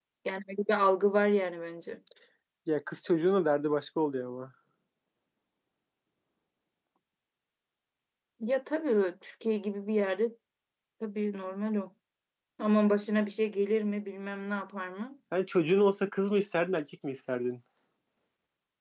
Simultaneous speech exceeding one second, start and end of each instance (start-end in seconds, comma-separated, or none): none